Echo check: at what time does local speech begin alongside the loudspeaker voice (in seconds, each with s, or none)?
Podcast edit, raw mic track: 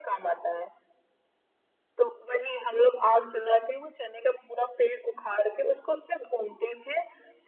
none